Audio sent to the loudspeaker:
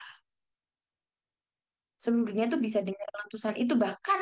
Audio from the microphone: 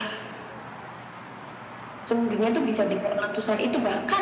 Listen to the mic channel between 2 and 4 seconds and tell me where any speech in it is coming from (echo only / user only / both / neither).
echo only